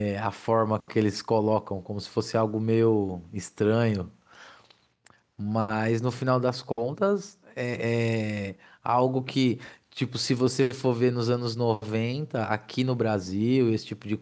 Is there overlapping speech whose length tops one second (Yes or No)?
No